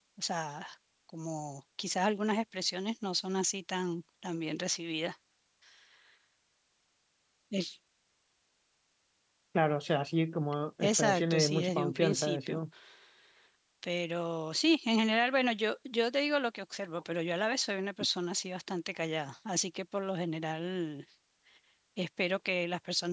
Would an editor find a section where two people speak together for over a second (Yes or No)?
Yes